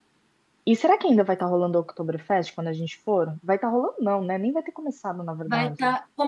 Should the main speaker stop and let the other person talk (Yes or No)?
Yes